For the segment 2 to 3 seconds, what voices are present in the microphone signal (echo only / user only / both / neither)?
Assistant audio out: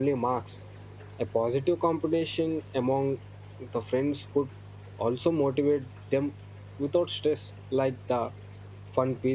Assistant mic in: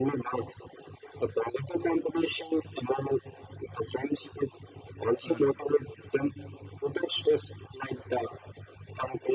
echo only